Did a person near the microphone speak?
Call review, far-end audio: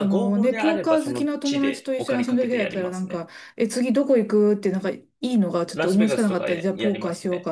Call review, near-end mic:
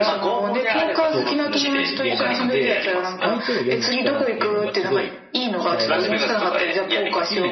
Yes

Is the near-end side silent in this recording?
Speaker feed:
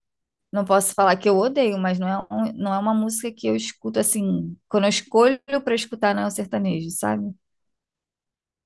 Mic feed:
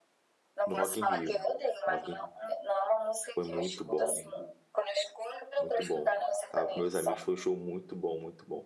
No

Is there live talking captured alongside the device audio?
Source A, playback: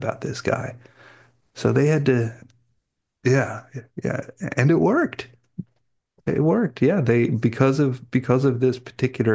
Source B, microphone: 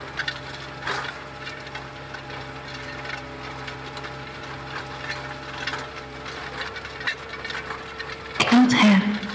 Yes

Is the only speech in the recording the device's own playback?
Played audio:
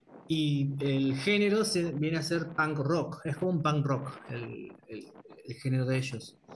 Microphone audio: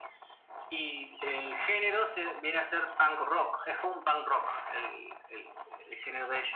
Yes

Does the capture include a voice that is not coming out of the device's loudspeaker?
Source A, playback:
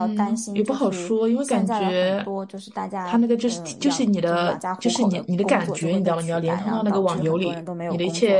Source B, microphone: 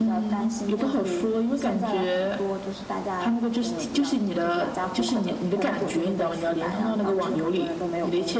Yes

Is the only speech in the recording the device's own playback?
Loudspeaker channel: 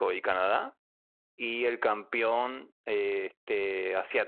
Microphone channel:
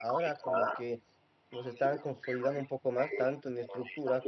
No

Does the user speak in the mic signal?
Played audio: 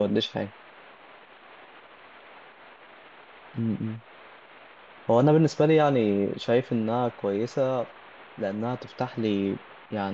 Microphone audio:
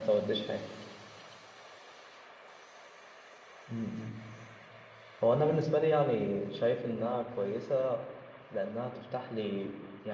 No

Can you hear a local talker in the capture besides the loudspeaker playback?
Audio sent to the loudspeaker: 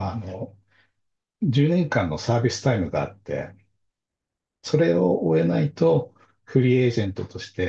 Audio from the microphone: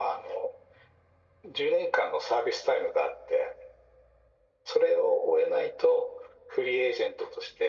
No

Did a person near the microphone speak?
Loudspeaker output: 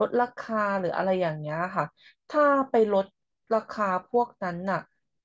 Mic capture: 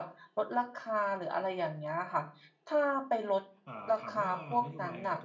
Yes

